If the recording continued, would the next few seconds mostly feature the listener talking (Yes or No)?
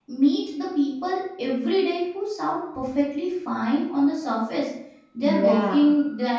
No